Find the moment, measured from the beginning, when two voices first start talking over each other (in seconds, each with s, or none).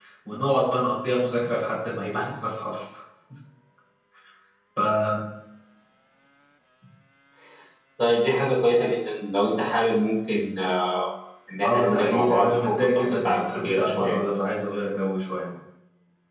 11.6 s